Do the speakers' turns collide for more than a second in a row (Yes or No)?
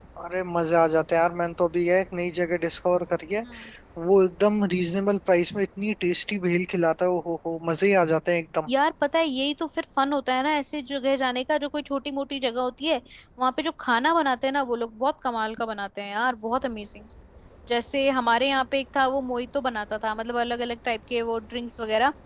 No